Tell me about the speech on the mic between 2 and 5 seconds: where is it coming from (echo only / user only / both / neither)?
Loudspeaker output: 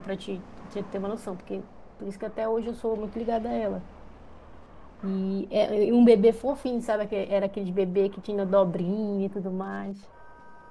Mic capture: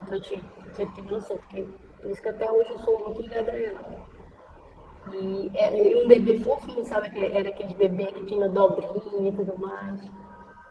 echo only